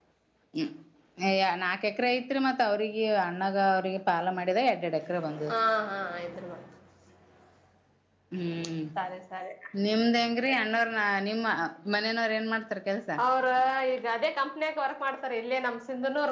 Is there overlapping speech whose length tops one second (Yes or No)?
No